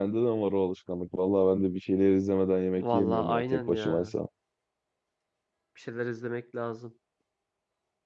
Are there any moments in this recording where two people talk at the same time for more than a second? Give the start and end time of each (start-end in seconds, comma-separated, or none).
2.8-4.1